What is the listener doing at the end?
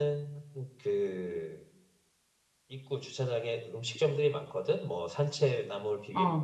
listening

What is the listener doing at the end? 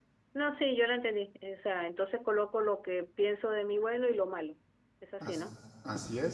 taking over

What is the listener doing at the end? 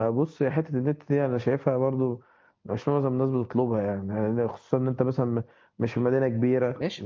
taking over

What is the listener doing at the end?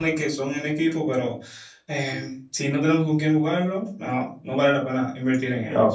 taking over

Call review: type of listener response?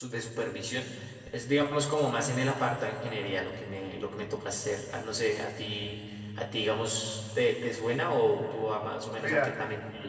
taking over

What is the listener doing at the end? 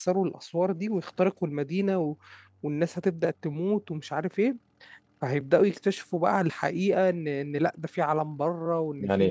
taking over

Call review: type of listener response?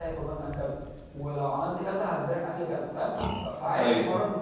listening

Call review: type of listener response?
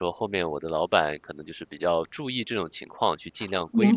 taking over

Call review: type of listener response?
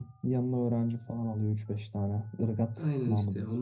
taking over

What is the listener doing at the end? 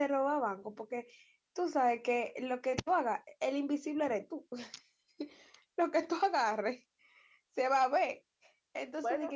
listening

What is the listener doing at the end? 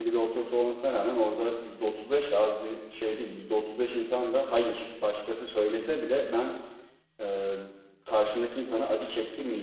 listening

